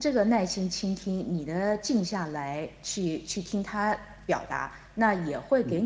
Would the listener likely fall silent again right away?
Yes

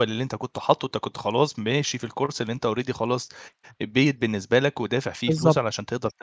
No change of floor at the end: Yes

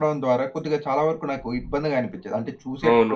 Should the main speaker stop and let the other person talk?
Yes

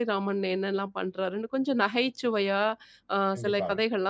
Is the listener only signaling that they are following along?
Yes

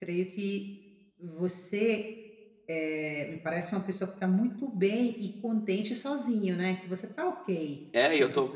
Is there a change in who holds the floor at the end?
Yes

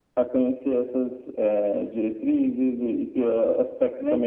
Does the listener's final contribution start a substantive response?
Yes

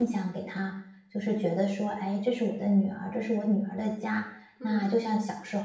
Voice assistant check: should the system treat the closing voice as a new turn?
No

